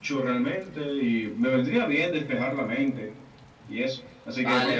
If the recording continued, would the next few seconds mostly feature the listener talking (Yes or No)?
Yes